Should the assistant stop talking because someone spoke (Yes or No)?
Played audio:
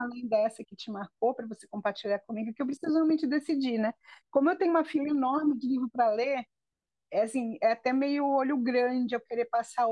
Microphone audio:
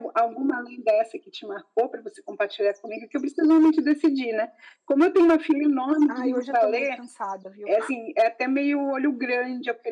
Yes